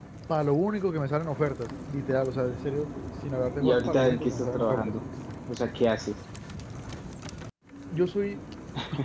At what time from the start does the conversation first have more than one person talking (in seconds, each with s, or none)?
3.6 s